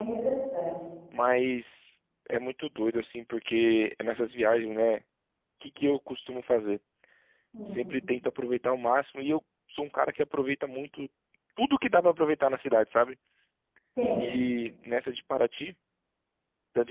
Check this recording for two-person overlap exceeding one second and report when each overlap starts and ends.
none

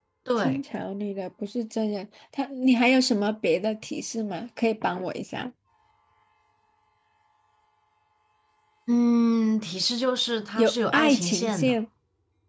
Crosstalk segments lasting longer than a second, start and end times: 10.6-11.8

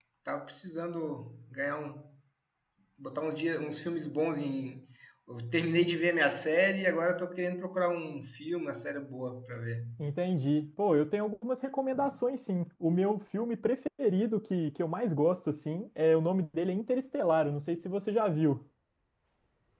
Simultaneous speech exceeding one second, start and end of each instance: none

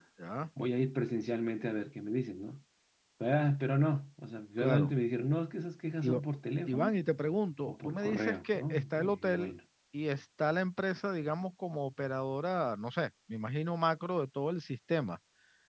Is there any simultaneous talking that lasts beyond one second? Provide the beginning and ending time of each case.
7.7-9.5

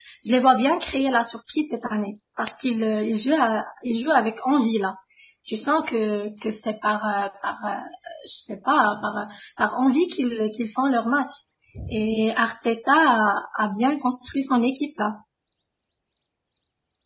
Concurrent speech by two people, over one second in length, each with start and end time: none

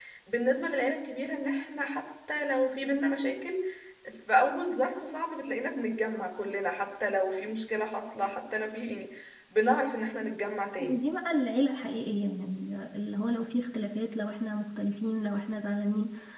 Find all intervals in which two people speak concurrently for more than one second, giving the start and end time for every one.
none

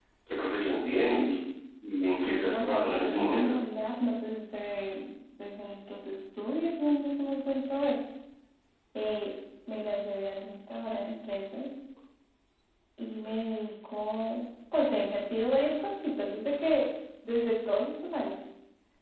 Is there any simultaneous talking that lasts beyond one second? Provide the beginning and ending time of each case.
2.2-3.6

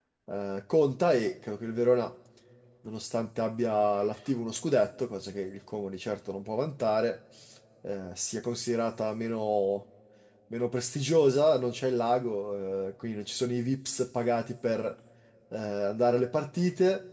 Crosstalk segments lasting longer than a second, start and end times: none

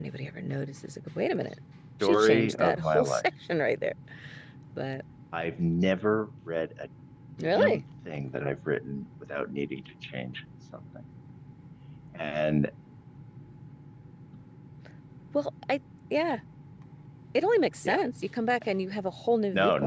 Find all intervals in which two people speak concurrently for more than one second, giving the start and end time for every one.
2.0-3.2

